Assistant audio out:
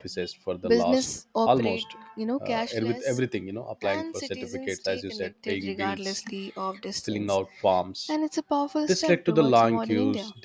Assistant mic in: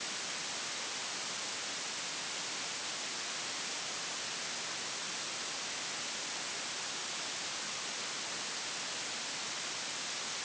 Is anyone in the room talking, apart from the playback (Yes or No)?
No